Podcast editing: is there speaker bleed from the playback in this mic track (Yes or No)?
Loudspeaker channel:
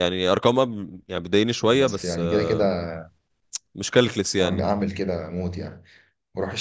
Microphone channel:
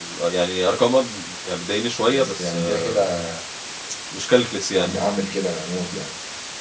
Yes